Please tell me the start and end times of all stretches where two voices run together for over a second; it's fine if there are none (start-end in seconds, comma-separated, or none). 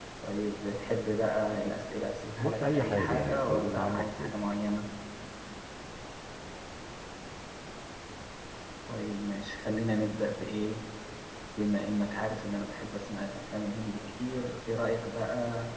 2.4-4.3